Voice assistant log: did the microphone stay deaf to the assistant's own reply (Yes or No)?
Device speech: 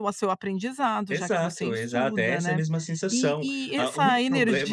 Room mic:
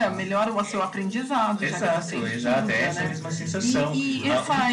No